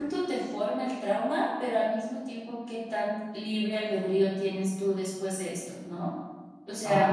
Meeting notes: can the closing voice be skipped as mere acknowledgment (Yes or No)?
No